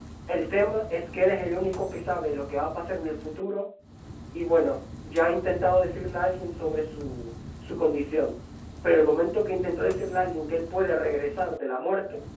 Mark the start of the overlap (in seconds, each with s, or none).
none